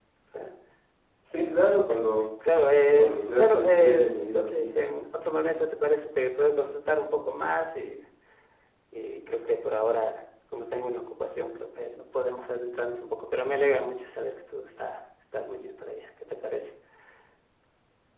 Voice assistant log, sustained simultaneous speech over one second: present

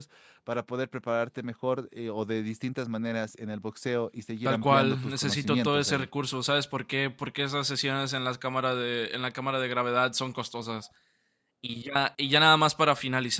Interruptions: present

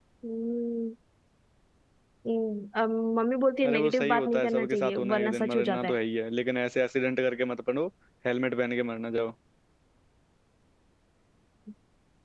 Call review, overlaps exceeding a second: present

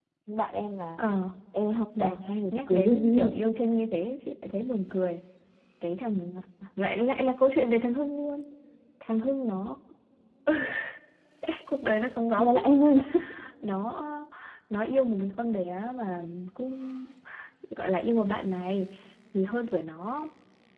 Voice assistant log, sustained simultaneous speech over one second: present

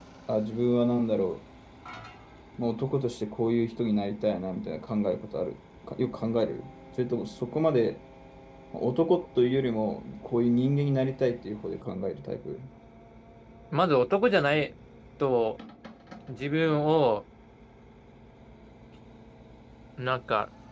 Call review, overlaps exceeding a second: none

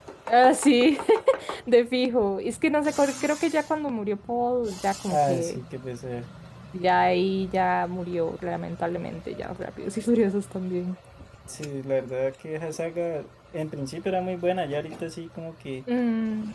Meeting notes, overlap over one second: none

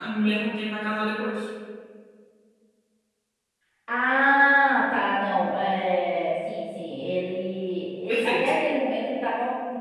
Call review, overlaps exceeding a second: none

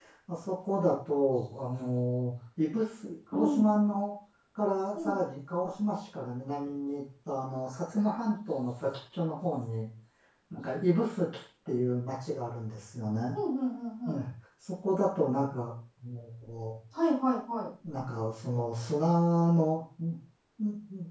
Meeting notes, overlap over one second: none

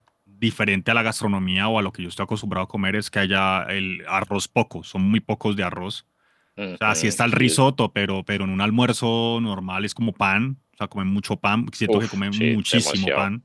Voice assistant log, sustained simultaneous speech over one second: present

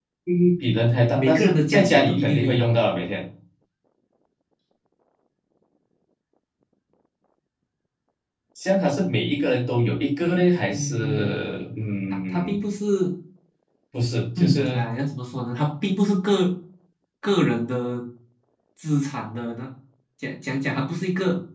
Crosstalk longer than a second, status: present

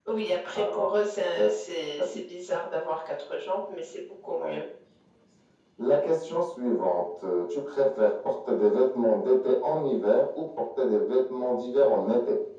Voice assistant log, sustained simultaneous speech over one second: none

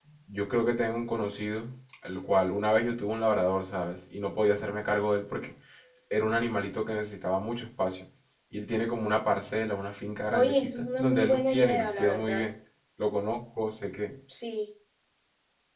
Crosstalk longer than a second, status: present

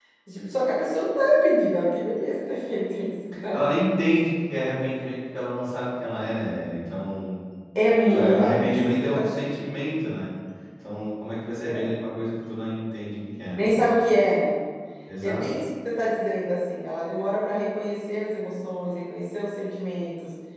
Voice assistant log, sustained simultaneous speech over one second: present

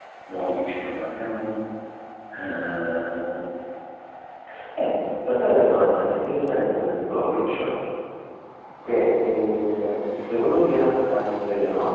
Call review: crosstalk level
none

